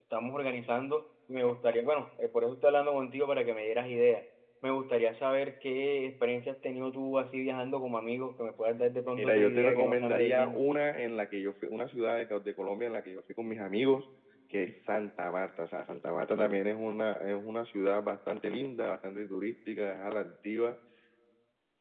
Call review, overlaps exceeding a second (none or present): present